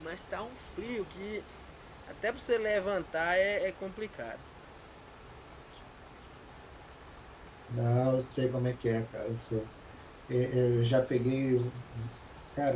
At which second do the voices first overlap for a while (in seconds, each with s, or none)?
none